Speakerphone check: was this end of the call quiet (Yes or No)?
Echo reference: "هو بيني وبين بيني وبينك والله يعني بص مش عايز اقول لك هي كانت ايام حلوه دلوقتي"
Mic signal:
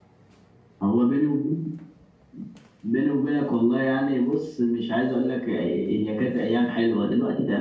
Yes